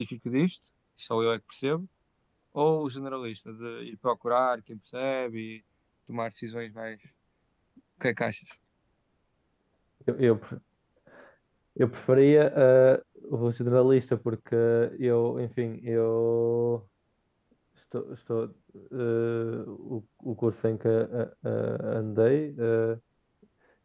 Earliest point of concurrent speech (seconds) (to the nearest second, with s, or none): none